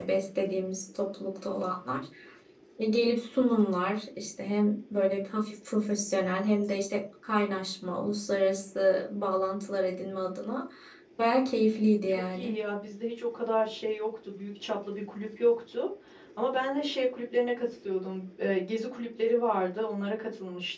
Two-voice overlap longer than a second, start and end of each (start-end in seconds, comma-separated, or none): none